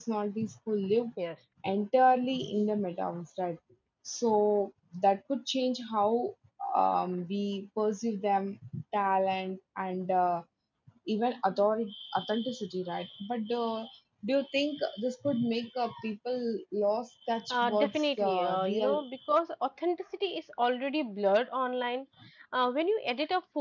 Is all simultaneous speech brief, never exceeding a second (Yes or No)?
No